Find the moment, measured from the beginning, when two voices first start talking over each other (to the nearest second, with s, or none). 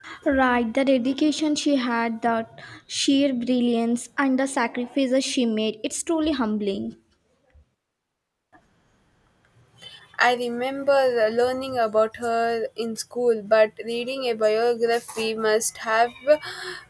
none